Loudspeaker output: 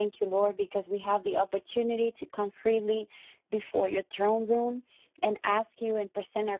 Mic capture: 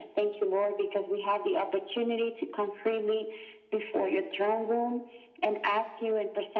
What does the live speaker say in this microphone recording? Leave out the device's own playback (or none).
none